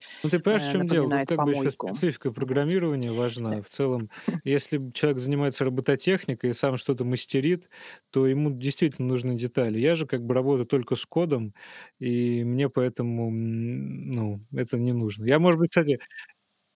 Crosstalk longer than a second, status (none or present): present